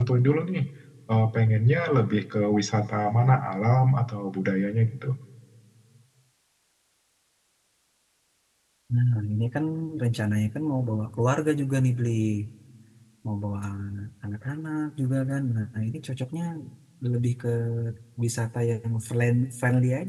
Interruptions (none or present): none